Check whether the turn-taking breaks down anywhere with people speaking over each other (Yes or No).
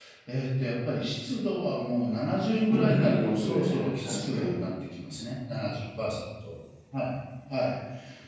Yes